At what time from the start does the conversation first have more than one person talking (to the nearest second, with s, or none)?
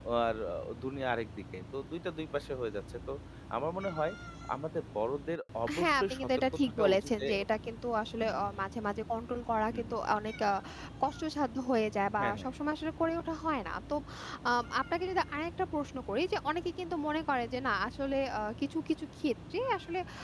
6 s